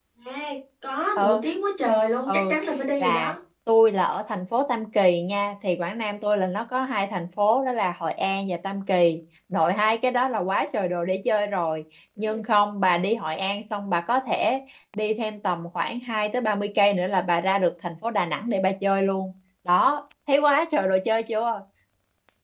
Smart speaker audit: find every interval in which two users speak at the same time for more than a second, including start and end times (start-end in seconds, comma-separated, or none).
none